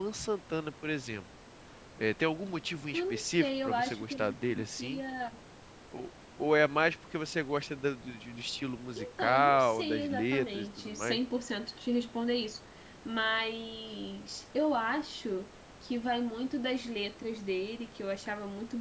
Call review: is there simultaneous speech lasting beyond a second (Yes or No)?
Yes